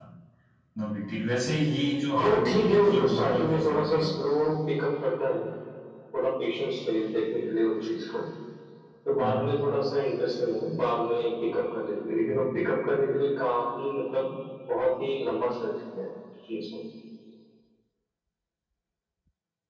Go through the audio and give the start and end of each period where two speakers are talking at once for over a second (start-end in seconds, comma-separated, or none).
2.1-4.3